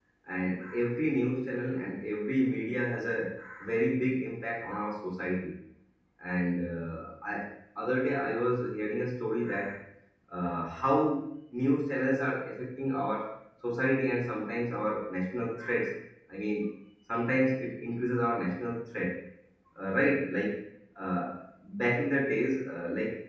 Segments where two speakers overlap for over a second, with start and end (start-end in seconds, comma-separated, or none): none